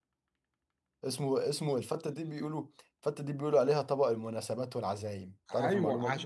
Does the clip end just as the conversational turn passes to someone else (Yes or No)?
Yes